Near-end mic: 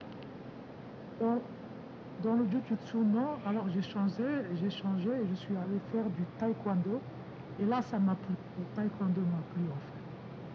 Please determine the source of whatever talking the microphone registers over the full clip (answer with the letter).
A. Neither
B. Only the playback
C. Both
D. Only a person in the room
B